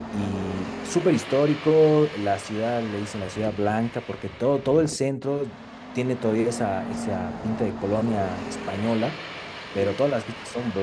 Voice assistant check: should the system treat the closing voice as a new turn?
No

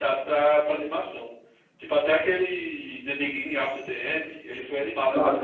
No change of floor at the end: No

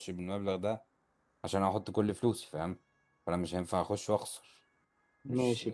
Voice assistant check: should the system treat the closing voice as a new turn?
Yes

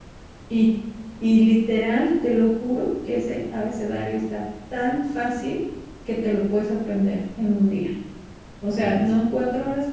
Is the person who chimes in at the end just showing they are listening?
Yes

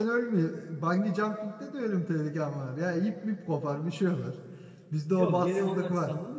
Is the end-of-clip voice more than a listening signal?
Yes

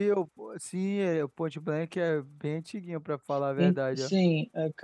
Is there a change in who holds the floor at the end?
Yes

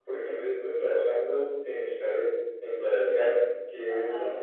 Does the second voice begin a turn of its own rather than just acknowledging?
No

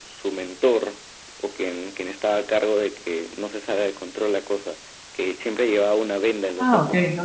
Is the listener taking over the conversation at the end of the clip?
Yes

